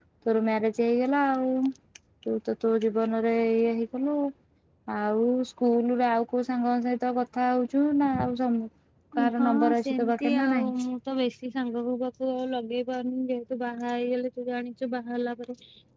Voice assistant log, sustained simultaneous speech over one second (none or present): present